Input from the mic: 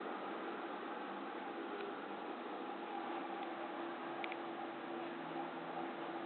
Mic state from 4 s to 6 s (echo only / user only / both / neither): neither